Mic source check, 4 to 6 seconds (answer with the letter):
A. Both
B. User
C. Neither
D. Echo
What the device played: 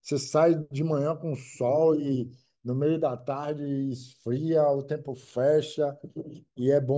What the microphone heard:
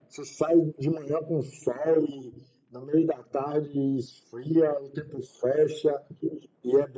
D